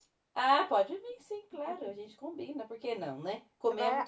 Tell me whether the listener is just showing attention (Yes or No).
No